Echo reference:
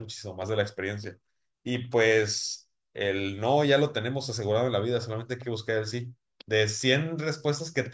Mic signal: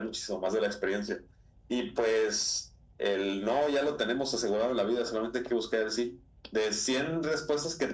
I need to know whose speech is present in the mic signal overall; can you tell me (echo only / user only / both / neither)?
echo only